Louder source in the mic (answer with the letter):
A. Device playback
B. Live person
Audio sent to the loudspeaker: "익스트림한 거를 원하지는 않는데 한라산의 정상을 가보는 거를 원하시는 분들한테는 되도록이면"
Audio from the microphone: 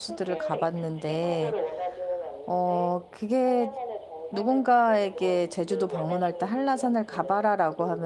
B